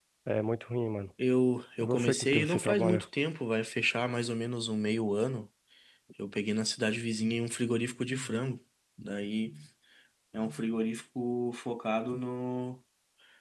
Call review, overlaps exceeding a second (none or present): present